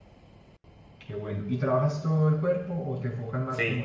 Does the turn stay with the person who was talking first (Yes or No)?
No